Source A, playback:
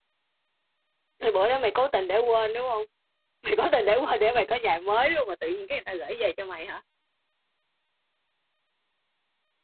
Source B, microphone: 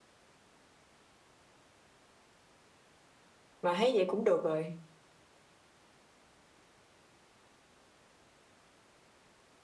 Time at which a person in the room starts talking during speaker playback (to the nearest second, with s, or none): 4 s